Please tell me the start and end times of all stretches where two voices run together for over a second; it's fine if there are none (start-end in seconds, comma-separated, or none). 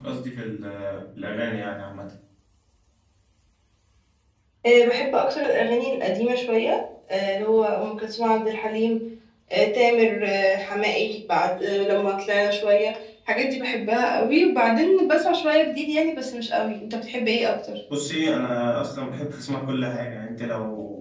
none